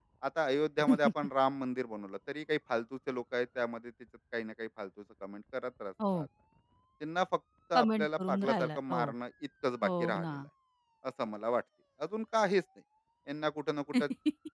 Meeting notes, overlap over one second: present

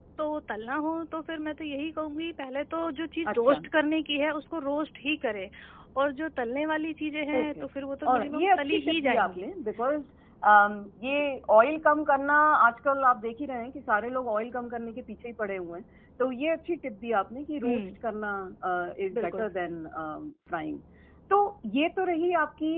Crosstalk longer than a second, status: present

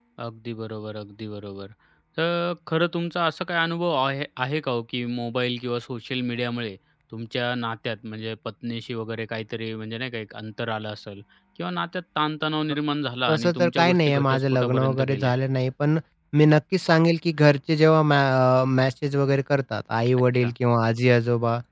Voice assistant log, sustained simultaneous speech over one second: present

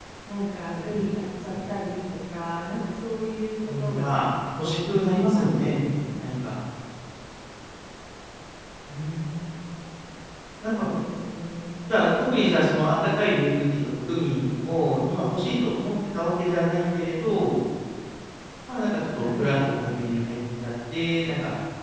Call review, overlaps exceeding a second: present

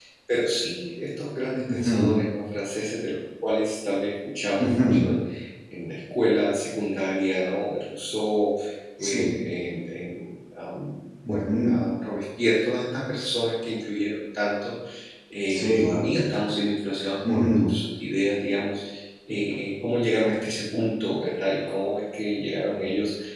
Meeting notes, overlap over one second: none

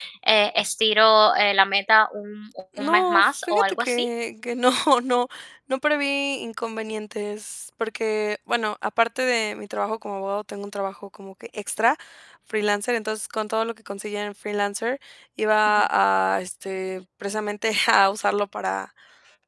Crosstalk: present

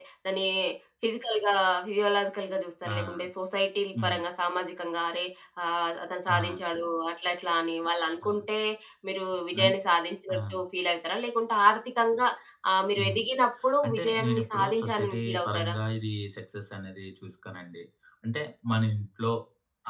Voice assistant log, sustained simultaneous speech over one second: present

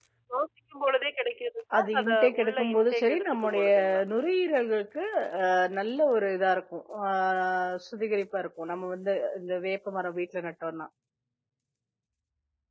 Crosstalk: present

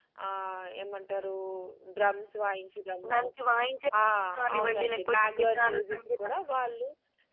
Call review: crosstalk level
present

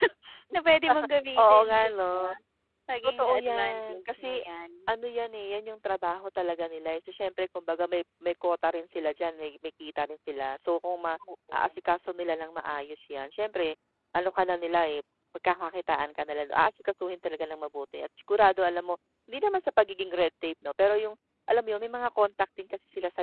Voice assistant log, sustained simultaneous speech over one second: present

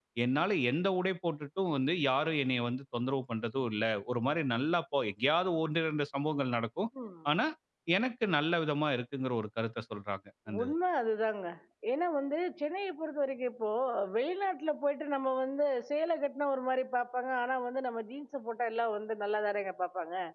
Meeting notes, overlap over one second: none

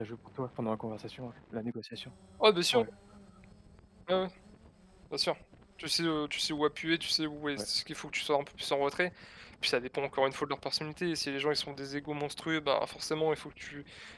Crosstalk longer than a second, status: none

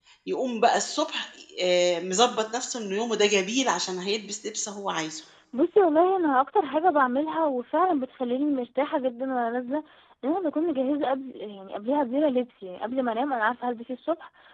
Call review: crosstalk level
none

